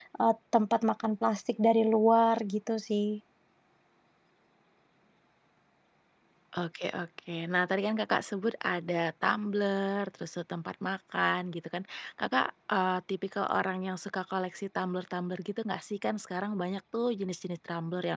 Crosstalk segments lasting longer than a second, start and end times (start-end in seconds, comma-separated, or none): none